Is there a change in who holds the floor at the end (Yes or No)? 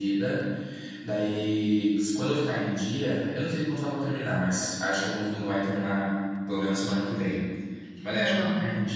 No